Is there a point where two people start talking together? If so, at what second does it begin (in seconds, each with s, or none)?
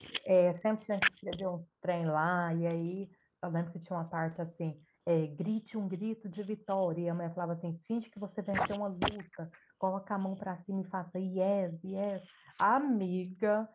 none